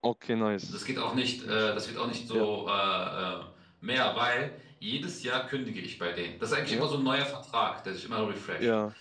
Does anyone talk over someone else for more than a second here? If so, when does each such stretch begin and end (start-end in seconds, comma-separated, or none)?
none